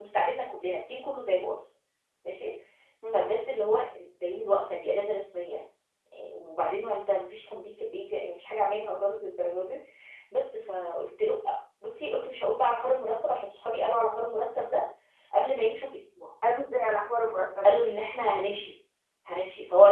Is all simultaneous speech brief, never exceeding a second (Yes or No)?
Yes